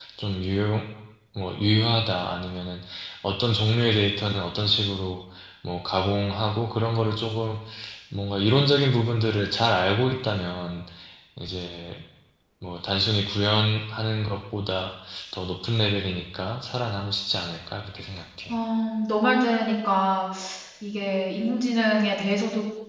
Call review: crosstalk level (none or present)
none